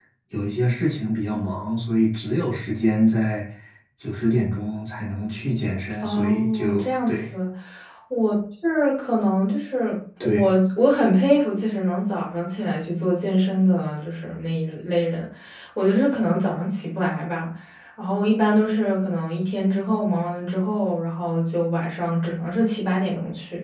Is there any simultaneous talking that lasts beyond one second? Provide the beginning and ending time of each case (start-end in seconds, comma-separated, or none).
6.0-7.2